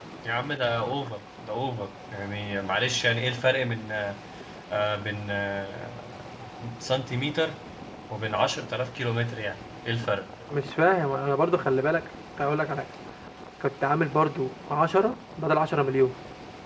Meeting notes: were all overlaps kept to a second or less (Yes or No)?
Yes